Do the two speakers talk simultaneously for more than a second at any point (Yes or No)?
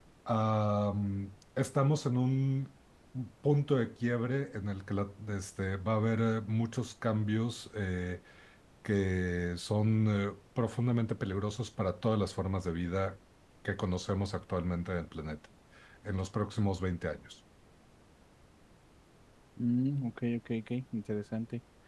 No